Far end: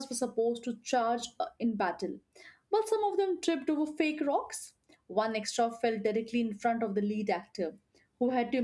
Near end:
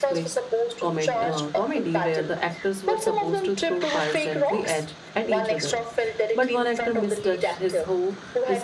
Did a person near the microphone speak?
Yes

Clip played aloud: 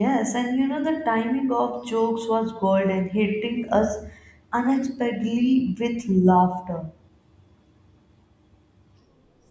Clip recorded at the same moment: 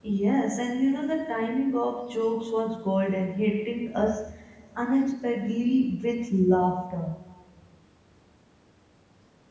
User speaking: No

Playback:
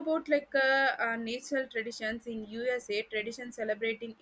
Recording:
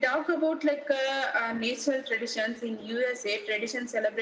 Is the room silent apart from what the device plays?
Yes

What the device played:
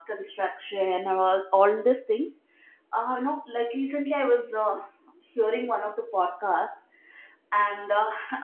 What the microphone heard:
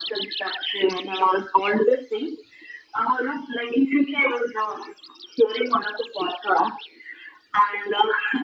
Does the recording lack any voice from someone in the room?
Yes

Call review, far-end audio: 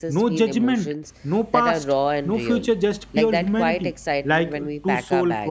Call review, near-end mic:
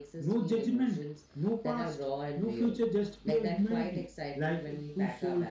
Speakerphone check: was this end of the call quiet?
Yes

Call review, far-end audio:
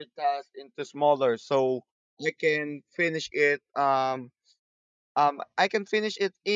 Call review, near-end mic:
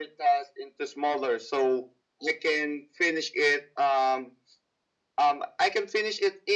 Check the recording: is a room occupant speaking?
No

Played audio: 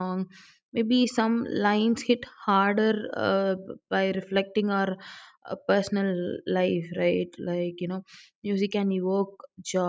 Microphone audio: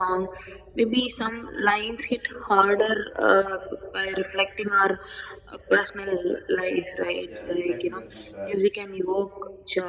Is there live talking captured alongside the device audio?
Yes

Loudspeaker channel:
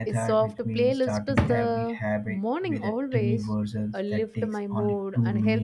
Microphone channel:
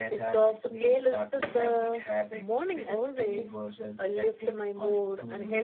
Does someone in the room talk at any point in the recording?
No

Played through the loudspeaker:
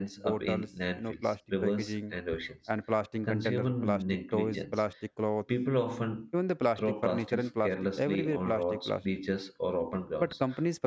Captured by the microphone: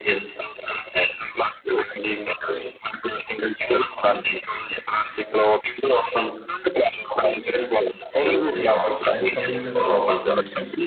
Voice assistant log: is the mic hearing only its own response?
No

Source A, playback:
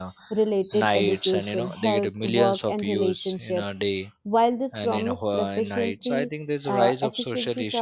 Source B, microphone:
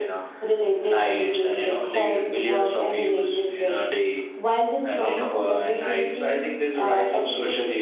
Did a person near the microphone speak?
No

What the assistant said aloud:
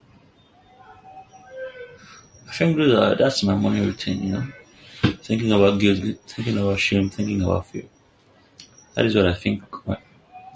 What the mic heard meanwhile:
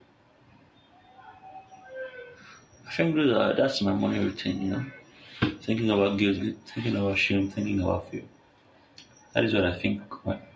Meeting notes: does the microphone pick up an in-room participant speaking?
No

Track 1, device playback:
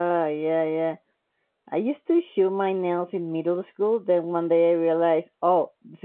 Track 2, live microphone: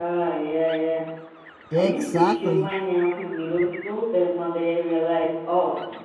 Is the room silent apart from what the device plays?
No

